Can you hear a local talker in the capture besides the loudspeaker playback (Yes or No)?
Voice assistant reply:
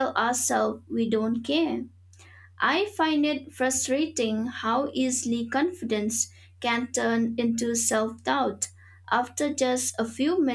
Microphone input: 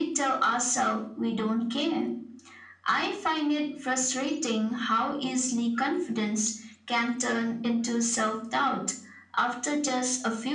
No